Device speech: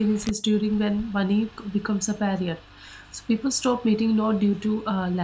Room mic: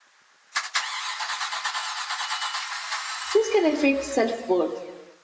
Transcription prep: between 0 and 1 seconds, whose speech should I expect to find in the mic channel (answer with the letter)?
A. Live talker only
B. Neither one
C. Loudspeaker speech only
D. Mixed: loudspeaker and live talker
B